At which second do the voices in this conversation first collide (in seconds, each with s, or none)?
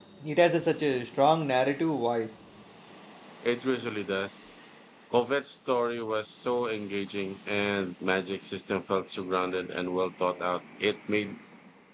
none